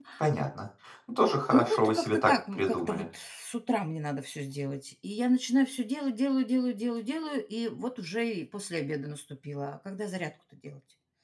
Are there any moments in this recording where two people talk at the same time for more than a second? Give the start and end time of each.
1.5-3.0

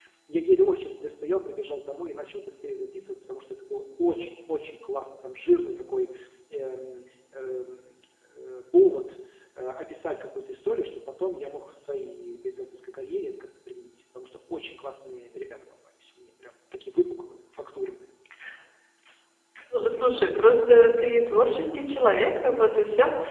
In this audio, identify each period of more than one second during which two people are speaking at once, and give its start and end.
none

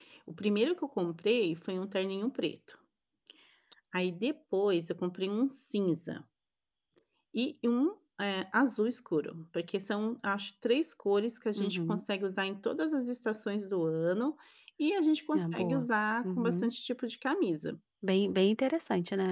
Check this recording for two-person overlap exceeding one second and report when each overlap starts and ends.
none

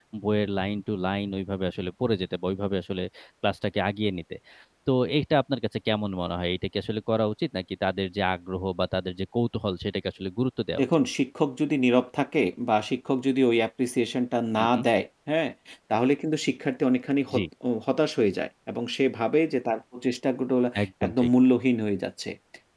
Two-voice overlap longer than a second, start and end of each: none

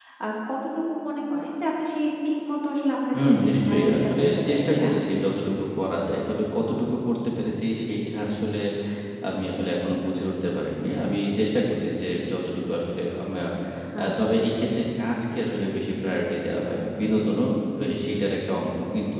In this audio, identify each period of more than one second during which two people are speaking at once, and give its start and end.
3.2-4.9

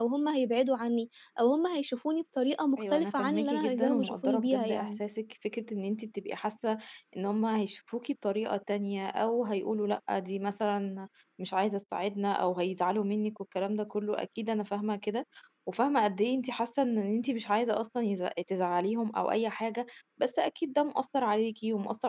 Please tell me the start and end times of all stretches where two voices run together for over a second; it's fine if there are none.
2.8-5.0

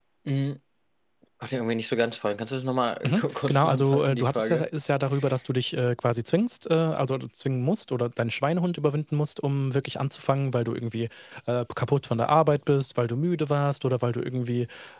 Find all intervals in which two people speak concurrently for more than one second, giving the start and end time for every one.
3.0-4.6

